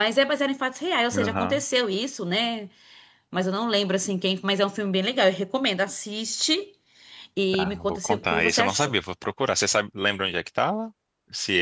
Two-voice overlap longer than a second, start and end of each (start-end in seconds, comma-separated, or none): 7.5-8.9